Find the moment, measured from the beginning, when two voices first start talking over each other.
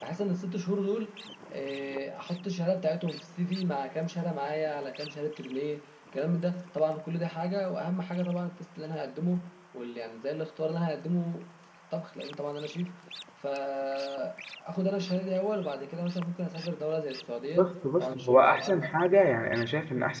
17.6 s

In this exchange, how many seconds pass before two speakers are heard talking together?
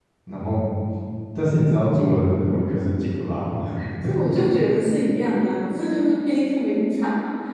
none

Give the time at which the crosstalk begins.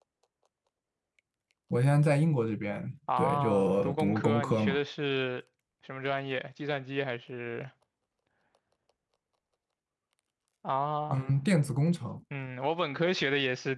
3.1 s

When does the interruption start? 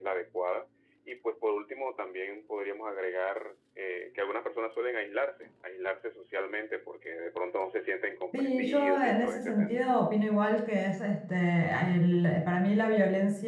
8.3 s

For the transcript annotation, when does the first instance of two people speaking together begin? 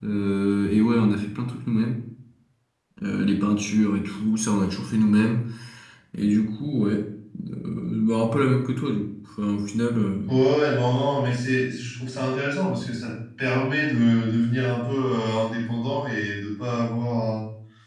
none

